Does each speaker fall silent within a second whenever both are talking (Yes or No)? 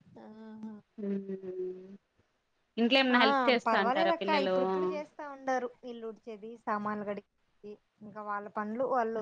No